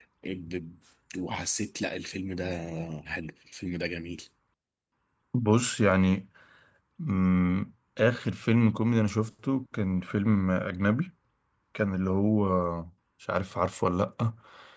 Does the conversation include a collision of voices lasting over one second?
No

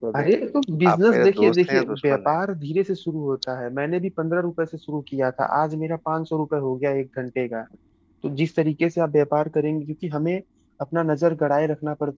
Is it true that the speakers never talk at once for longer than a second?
No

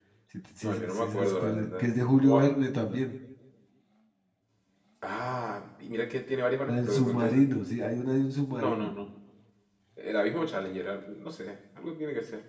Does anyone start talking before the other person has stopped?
Yes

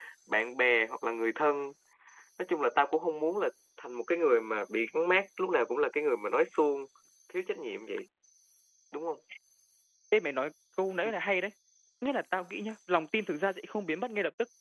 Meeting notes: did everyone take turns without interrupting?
Yes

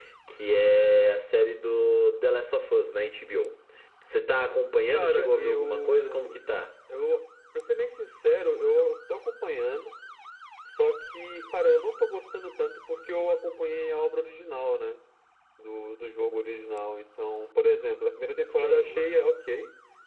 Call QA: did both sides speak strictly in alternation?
No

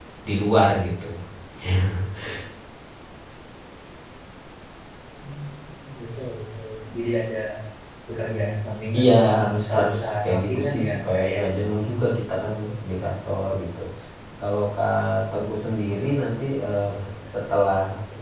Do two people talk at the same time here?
Yes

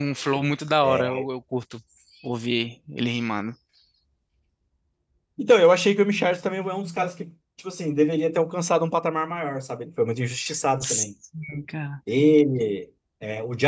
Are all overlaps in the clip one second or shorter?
Yes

